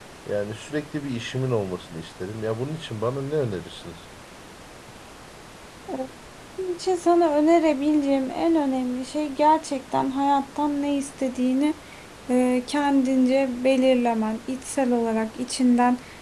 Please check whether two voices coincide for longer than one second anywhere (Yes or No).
No